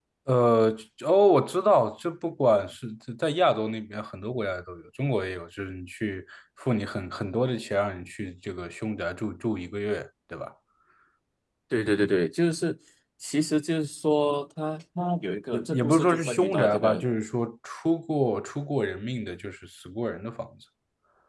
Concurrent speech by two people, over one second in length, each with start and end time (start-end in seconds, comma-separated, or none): 15.5-17.0